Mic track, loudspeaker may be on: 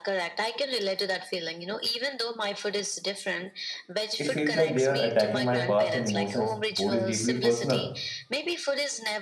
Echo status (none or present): present